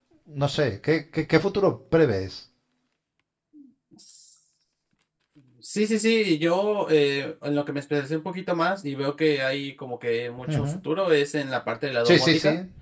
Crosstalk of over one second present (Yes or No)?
No